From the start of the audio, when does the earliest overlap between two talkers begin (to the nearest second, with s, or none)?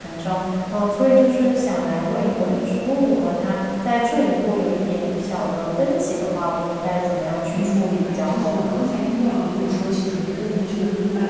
8 s